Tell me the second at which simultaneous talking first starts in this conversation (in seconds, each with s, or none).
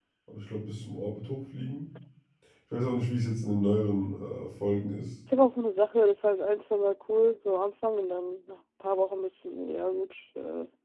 none